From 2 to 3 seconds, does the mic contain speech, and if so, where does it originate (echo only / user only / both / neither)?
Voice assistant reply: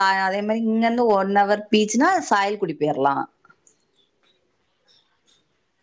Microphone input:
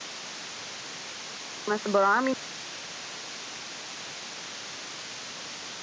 user only